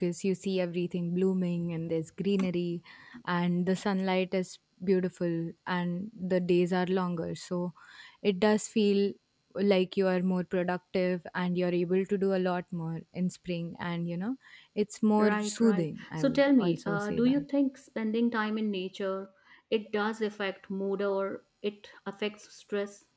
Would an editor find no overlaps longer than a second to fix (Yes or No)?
No